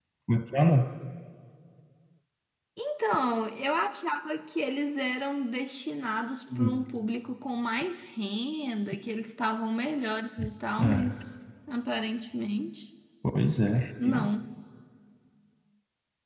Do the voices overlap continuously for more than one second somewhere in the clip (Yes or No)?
No